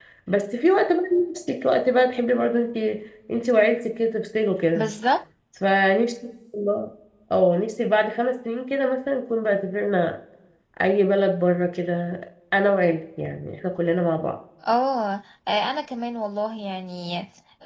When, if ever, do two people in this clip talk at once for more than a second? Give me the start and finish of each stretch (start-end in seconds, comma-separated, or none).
none